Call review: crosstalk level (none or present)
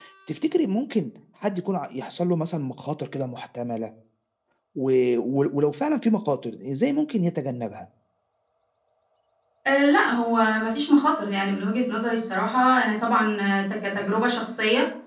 none